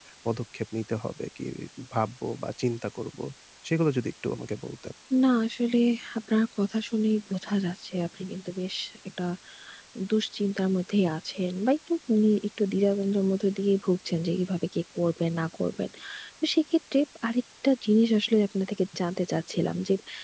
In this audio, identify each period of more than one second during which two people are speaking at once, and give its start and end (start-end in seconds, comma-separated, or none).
none